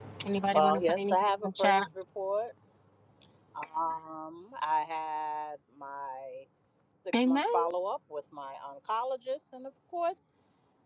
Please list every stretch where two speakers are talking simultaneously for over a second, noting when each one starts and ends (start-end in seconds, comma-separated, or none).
0.5-1.8